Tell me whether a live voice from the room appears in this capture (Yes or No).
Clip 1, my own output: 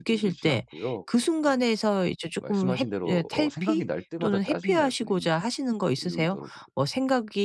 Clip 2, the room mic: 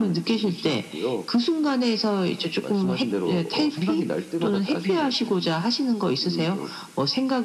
No